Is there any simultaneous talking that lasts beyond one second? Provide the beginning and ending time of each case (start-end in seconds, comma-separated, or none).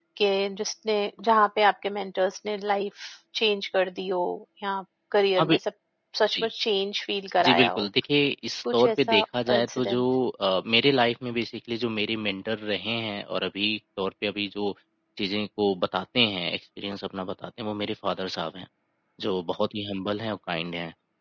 8.7-10.0